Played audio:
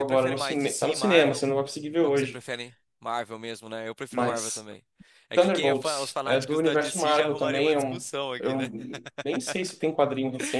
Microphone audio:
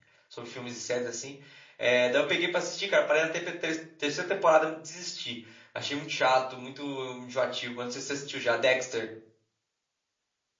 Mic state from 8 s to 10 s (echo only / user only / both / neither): user only